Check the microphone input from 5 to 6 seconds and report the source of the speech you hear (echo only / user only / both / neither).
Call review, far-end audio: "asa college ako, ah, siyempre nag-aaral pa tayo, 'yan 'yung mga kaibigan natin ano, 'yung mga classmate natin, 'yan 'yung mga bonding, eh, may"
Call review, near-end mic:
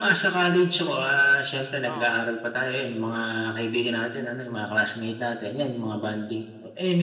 echo only